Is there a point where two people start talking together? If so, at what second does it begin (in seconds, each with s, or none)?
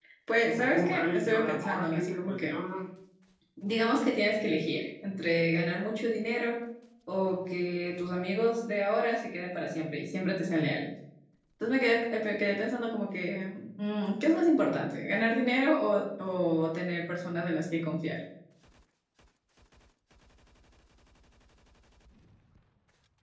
0.5 s